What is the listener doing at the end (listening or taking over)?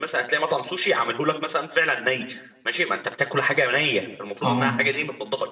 listening